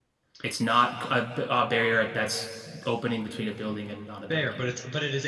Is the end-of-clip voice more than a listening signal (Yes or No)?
Yes